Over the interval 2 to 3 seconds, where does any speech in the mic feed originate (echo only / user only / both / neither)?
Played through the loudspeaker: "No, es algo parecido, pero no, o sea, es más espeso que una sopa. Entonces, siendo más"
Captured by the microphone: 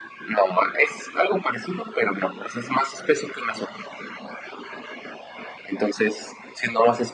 echo only